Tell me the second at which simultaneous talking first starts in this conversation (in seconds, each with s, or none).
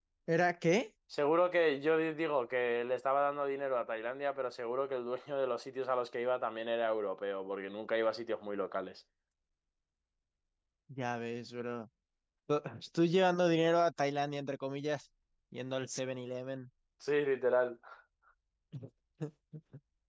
none